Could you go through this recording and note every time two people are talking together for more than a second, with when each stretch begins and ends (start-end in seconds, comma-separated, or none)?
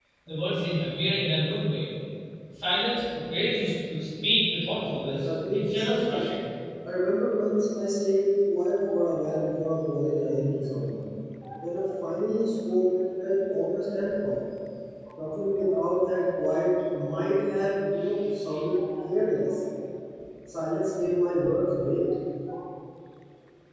5.1-6.3